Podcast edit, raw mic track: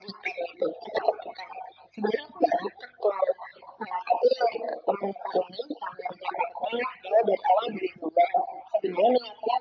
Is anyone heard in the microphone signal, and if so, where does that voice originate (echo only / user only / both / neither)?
echo only